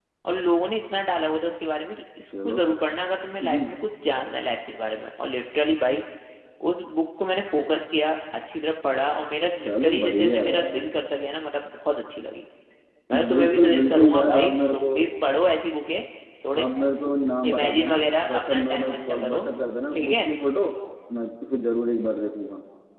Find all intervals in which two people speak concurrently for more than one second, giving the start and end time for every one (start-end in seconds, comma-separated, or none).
9.7-10.9, 13.3-14.9, 17.5-19.4